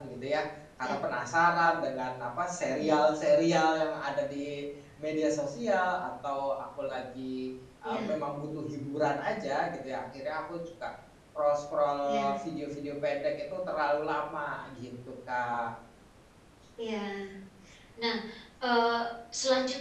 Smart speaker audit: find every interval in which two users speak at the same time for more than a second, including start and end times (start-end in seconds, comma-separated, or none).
none